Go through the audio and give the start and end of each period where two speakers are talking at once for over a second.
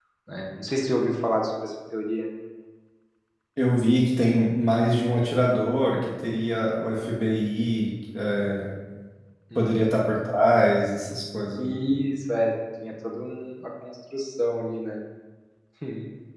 none

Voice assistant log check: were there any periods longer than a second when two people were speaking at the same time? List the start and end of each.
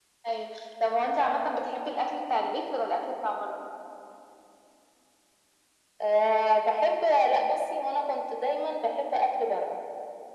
none

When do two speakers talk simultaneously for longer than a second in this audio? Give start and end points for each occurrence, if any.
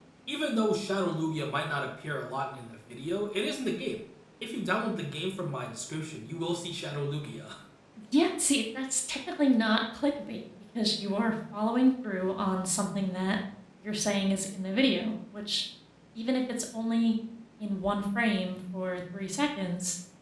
none

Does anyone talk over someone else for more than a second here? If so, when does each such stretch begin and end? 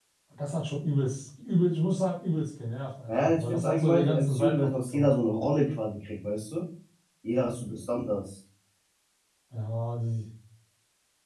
3.1-5.1

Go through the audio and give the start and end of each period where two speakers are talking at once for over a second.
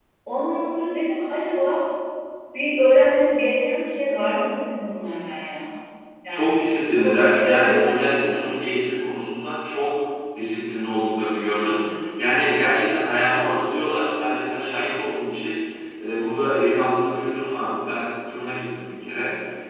6.3-8.3

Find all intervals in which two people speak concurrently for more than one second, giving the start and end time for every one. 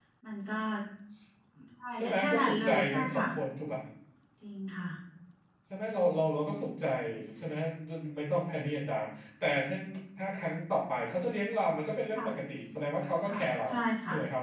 2.0-3.2

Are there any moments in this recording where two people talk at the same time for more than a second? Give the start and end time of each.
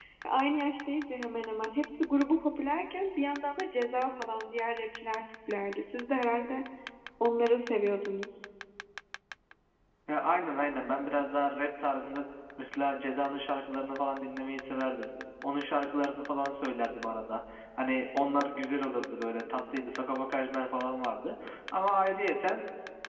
none

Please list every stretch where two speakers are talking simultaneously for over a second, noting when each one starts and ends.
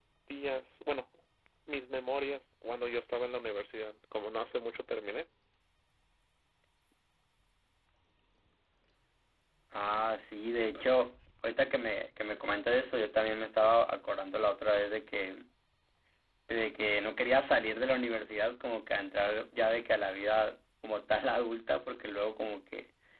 none

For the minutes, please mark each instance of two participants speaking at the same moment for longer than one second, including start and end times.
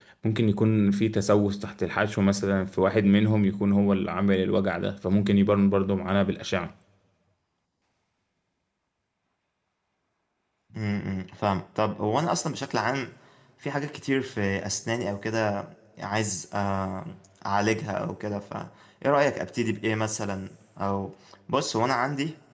none

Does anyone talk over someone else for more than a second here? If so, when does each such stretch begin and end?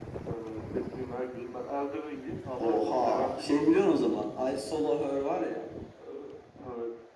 2.6-3.9

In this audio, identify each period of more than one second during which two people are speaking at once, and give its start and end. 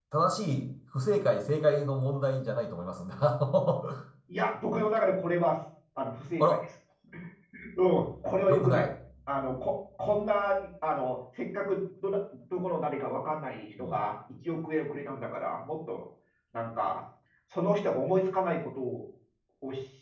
none

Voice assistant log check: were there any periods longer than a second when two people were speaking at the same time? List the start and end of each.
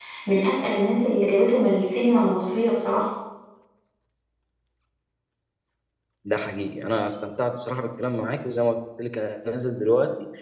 none

